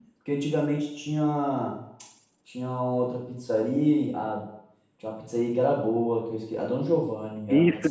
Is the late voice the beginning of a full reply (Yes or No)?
Yes